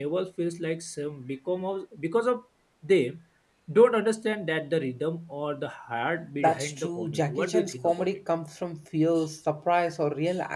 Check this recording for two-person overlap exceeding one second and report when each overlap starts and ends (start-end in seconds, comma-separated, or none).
6.4-8.1